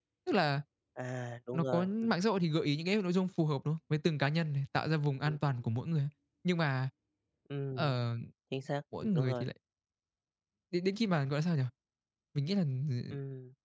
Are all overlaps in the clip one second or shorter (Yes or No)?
Yes